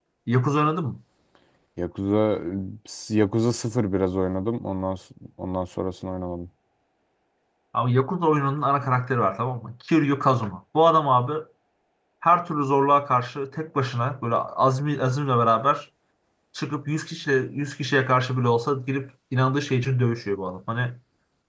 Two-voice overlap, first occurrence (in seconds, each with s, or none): none